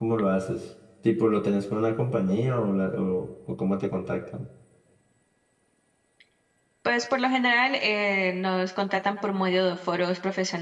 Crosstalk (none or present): none